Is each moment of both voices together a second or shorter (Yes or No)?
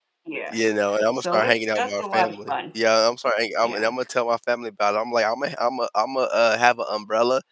No